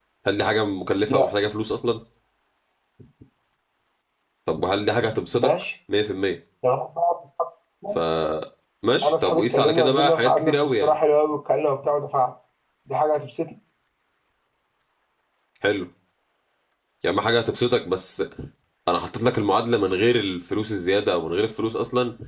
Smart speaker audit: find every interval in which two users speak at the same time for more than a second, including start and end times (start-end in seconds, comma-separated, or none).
9.0-10.9